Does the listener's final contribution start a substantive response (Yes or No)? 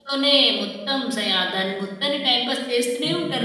Yes